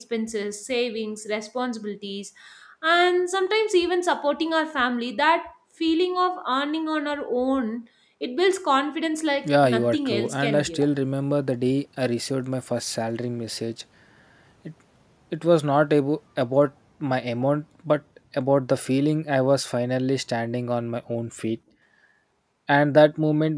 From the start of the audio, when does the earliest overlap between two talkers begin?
9.4 s

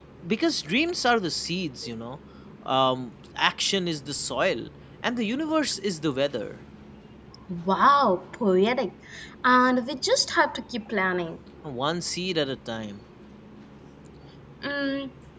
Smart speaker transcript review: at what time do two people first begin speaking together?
none

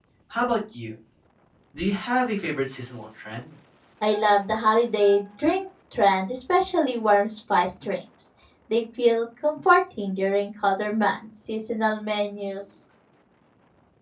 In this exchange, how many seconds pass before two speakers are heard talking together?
none

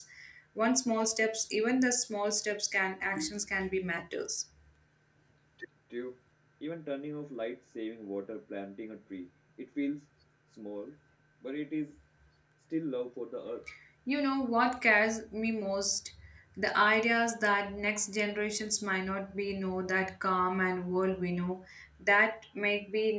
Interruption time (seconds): none

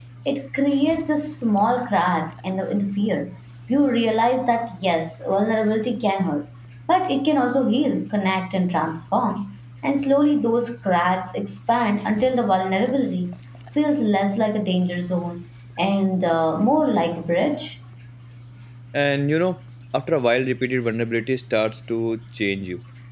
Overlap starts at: none

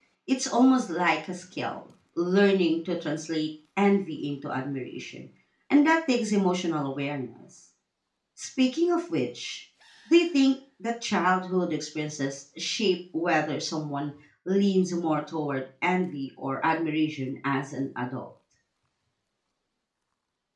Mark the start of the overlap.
none

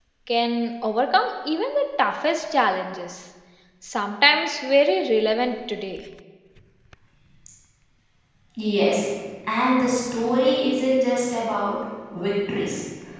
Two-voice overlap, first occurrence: none

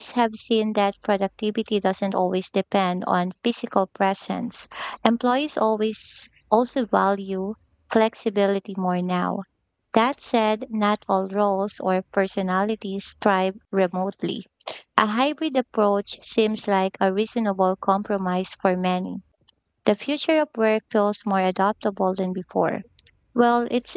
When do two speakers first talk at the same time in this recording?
none

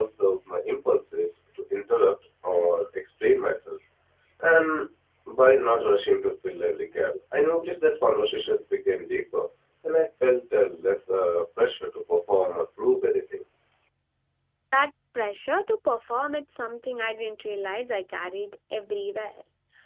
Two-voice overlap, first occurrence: none

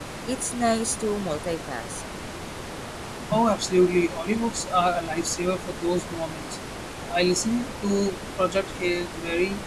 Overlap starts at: none

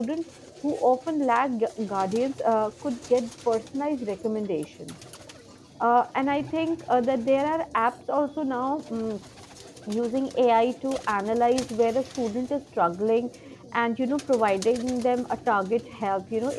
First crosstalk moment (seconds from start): none

